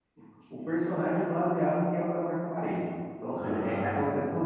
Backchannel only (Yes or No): Yes